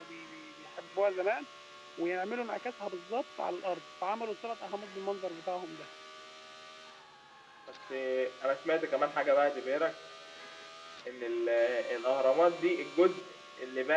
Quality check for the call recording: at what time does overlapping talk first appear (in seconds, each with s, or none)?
none